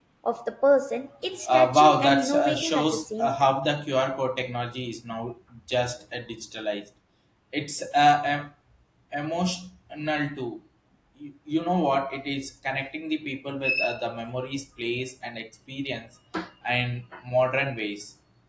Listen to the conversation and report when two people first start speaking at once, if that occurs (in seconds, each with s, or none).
1.5 s